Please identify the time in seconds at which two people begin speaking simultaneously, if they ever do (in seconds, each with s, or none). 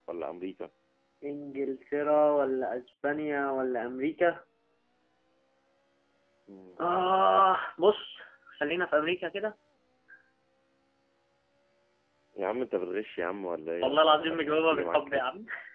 13.8 s